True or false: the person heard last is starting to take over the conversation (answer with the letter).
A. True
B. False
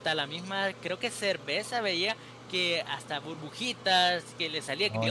B